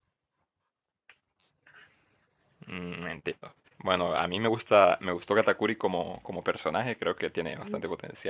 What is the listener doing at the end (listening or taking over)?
listening